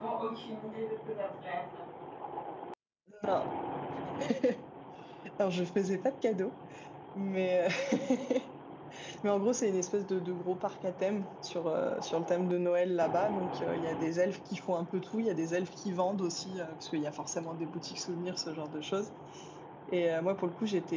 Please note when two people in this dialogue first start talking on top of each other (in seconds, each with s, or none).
none